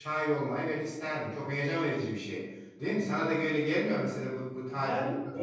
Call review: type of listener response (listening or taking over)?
taking over